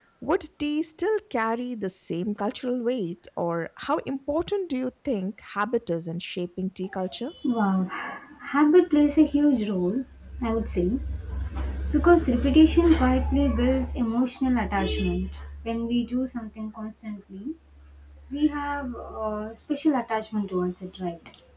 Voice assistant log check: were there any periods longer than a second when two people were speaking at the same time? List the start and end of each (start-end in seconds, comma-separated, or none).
none